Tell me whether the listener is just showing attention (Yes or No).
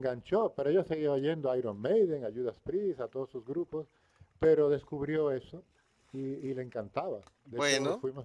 Yes